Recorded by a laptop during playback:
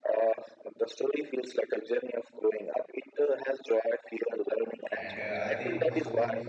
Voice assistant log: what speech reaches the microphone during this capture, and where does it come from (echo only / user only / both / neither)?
both